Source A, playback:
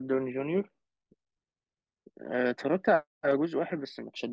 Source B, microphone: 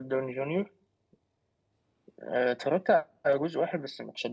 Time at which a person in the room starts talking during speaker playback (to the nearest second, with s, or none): none